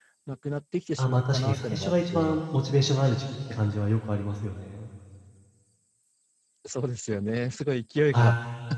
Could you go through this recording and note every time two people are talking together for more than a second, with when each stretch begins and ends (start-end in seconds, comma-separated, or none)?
1.0-2.4